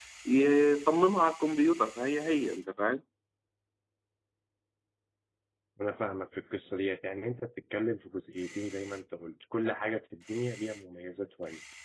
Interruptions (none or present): none